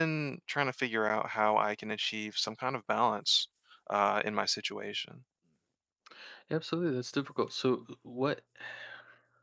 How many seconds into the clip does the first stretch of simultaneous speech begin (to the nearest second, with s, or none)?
none